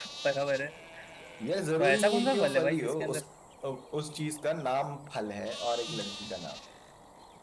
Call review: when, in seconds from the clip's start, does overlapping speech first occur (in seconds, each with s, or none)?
1.8 s